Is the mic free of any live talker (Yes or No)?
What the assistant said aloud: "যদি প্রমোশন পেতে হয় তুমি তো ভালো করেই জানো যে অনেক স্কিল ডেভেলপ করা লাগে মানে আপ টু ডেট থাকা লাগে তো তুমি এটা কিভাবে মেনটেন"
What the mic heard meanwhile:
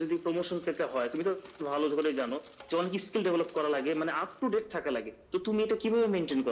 Yes